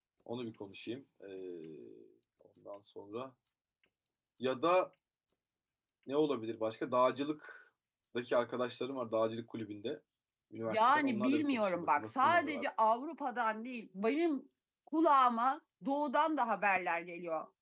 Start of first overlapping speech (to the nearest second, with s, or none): 11 s